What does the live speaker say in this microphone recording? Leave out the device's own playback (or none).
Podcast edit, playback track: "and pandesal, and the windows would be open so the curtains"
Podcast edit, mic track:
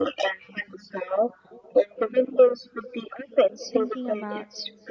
thinking about